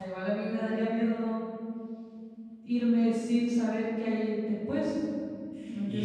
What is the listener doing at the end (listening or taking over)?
taking over